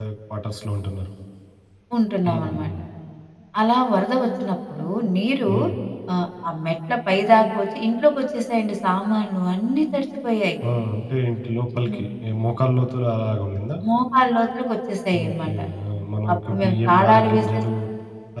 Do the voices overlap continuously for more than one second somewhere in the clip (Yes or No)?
Yes